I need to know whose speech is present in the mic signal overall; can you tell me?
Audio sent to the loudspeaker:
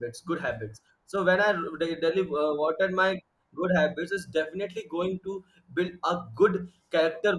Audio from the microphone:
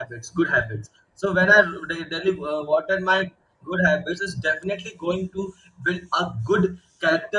echo only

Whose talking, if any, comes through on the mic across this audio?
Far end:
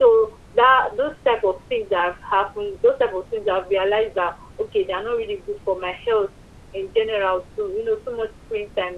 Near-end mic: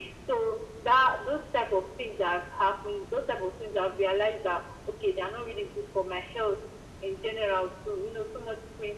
echo only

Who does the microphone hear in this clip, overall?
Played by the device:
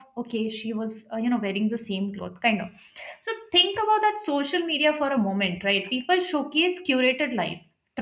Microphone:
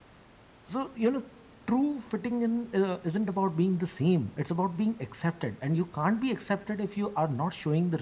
user only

